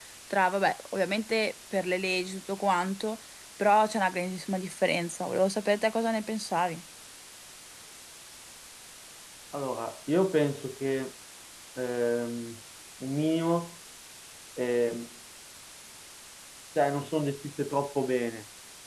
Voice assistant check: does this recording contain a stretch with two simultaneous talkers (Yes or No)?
No